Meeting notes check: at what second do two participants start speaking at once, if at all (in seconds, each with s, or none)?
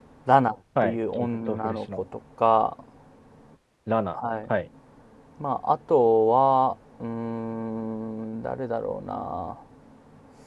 0.8 s